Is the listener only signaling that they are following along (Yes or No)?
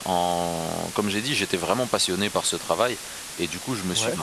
Yes